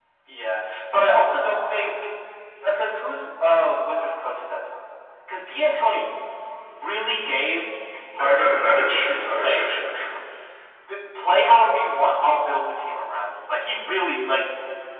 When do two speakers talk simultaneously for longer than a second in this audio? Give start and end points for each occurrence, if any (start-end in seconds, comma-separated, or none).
8.2-9.6